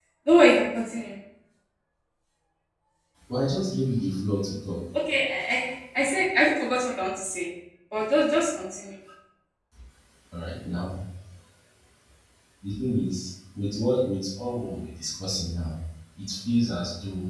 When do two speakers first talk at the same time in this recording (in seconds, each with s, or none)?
none